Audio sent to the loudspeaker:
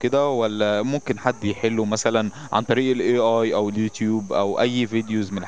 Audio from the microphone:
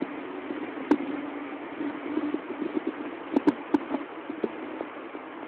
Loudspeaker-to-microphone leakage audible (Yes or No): No